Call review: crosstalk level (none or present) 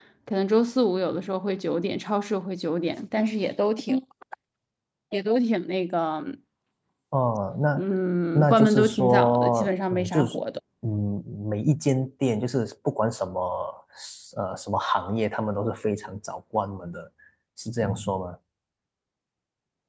present